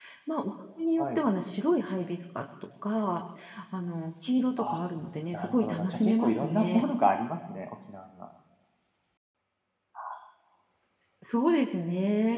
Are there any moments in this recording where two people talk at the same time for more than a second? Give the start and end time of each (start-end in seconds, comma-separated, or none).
5.3-6.8